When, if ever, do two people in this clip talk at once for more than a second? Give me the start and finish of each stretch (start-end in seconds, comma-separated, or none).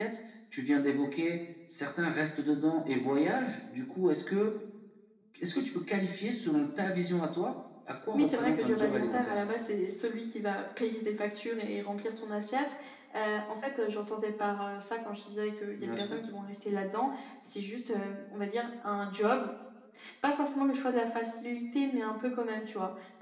8.1-9.4